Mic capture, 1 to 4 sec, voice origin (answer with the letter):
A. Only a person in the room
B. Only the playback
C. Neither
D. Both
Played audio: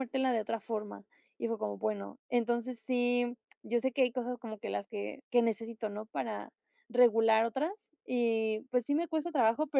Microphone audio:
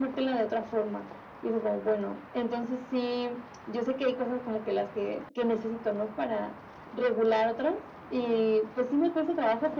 B